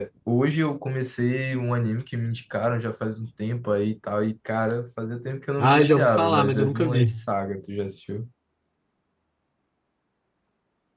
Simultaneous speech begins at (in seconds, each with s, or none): 5.6 s